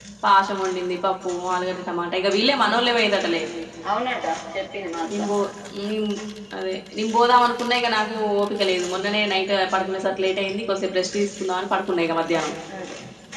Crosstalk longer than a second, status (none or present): none